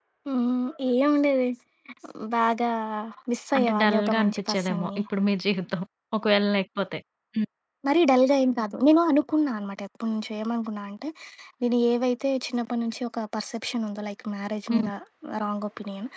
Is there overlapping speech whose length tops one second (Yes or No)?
Yes